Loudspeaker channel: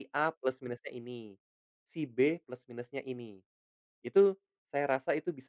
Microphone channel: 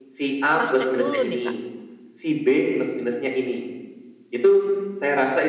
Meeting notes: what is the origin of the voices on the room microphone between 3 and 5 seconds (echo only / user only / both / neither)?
echo only